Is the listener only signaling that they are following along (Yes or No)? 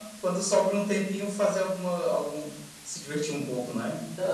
No